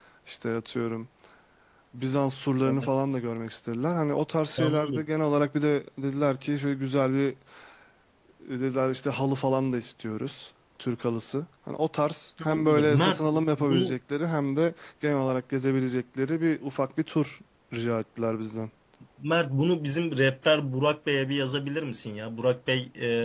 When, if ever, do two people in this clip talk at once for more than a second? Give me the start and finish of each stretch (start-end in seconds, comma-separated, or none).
12.4-13.9